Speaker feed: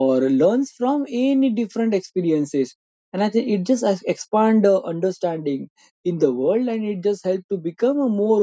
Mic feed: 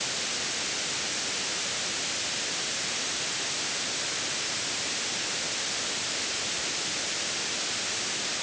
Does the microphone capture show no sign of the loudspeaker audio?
Yes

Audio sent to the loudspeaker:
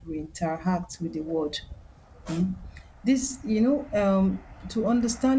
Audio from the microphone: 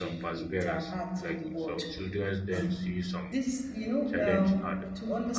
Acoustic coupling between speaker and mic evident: Yes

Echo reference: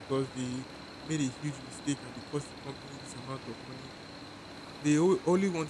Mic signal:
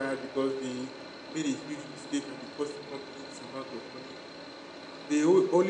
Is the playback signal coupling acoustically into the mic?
Yes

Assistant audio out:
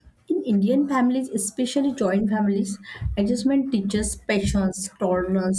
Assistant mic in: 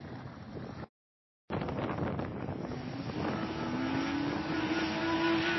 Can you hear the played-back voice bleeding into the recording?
No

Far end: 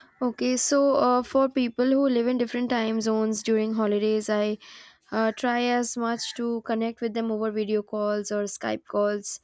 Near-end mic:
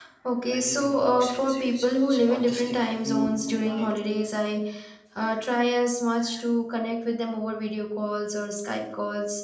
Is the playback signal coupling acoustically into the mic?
Yes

